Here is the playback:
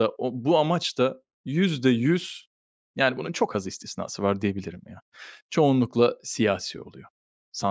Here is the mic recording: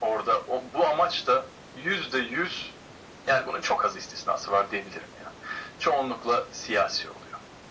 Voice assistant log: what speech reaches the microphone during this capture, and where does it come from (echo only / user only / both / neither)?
echo only